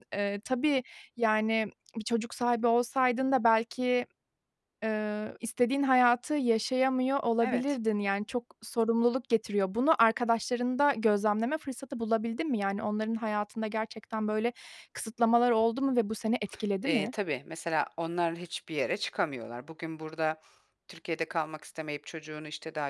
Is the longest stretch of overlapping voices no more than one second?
Yes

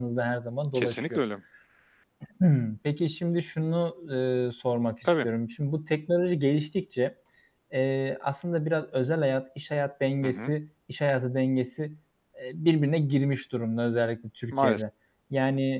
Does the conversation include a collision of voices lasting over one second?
No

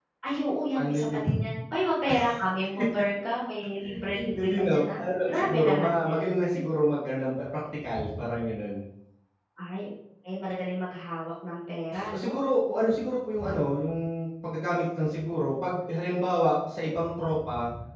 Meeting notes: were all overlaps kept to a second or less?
No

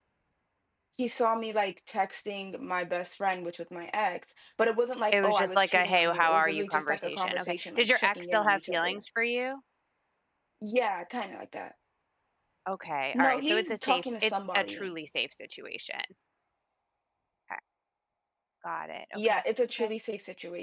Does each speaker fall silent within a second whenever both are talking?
No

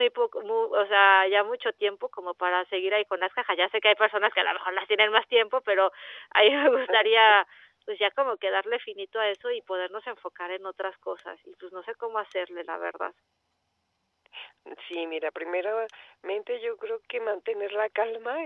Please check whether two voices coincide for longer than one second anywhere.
No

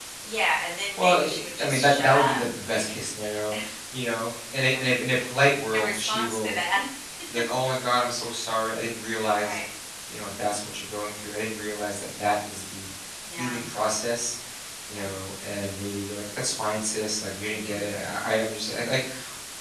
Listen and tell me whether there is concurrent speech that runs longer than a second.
Yes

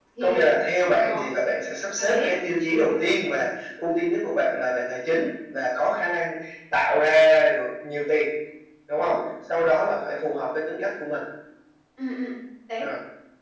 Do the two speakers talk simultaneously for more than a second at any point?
No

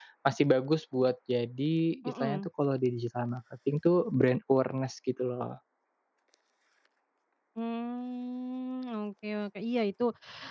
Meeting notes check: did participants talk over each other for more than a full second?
No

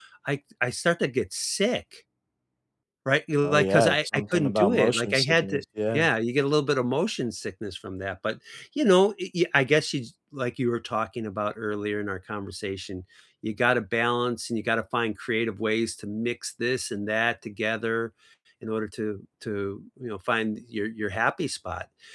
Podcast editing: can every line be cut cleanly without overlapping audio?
No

